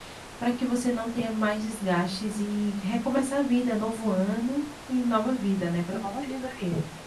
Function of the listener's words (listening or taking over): taking over